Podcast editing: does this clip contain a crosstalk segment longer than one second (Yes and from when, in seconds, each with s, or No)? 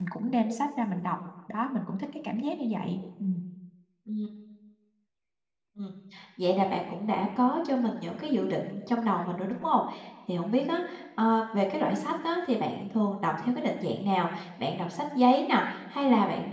No